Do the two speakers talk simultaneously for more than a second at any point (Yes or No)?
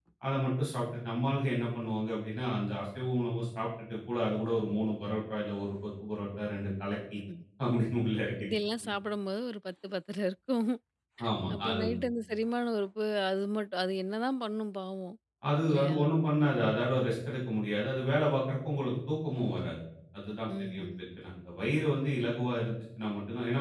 No